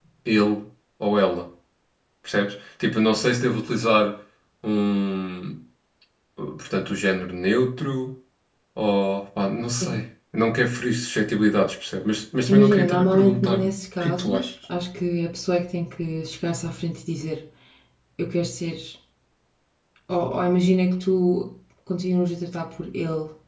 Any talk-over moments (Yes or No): Yes